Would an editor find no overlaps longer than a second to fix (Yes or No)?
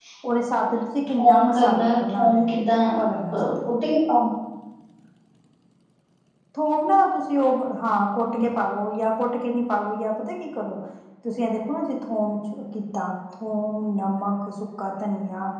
No